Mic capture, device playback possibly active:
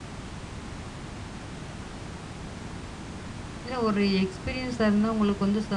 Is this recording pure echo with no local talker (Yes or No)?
No